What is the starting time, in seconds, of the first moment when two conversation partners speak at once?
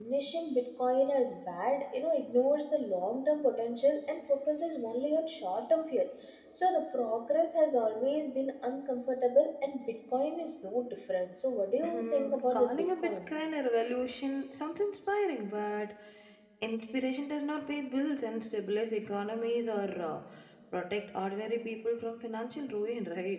11.8 s

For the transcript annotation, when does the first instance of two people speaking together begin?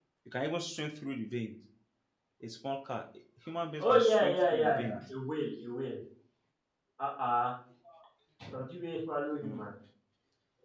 3.8 s

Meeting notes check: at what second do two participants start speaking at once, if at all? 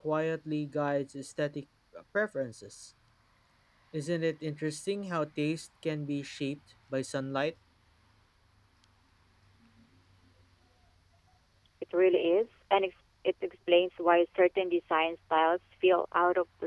none

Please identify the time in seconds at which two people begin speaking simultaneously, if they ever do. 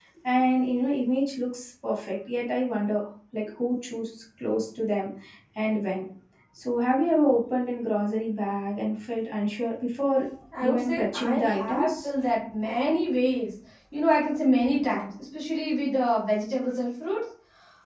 10.6 s

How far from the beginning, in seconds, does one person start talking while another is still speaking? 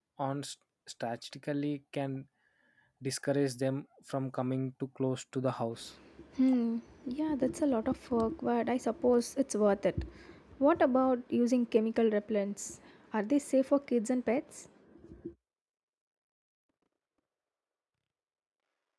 none

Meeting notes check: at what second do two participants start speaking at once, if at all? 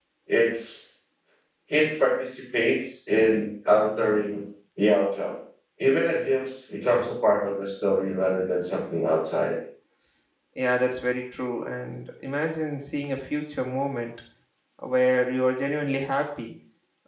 none

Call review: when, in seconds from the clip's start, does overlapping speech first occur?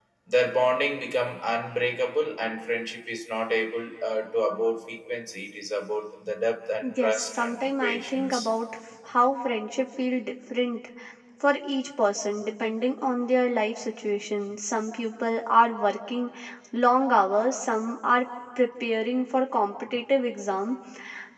6.8 s

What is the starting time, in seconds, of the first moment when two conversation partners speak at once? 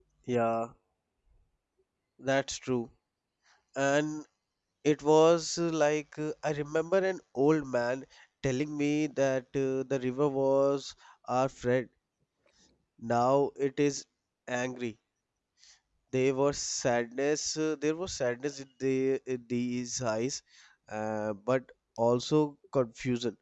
none

